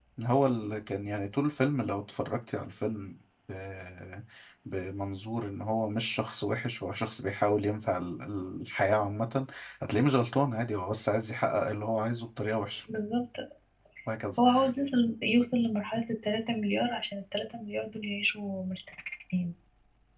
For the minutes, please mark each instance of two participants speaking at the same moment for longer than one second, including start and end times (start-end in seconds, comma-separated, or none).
none